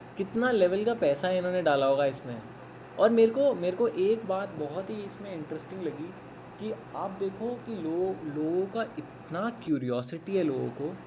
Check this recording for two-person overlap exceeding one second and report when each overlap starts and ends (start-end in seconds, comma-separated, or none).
none